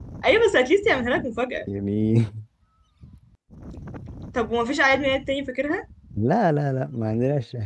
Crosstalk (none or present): none